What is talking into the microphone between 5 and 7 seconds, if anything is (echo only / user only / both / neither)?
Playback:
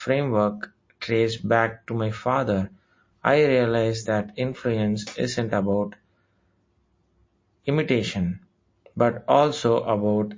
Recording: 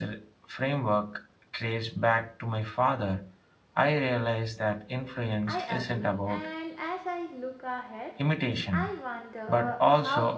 both